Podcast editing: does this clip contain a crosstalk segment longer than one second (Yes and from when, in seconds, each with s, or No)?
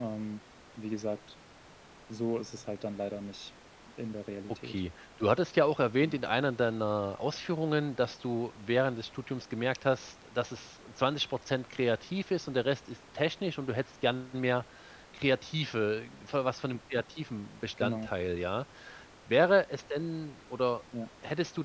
No